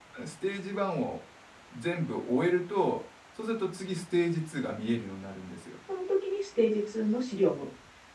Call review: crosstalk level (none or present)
none